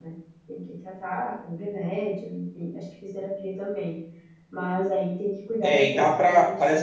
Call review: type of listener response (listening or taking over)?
taking over